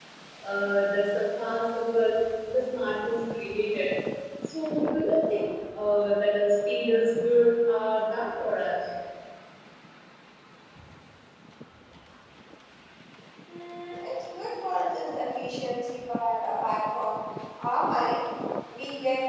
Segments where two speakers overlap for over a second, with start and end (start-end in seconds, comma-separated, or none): none